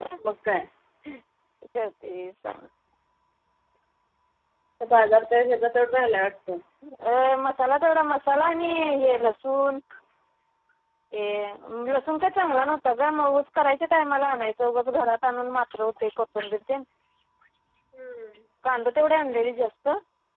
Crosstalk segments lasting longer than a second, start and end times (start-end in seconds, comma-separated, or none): none